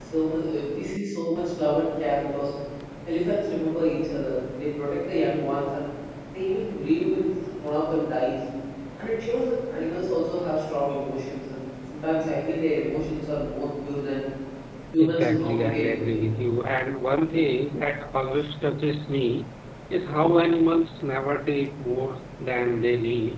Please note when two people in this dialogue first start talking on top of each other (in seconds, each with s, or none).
15.0 s